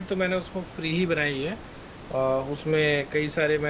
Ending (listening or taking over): listening